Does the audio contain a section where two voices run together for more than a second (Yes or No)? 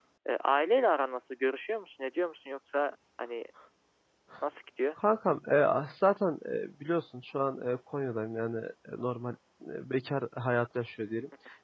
No